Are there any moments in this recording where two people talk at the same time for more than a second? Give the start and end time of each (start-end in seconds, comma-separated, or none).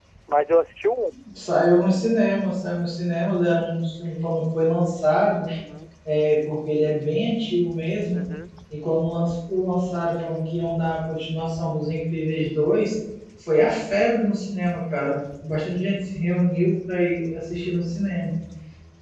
none